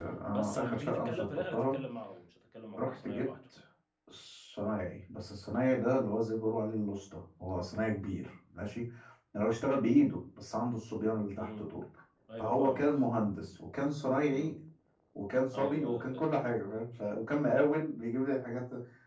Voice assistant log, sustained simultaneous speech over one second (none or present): present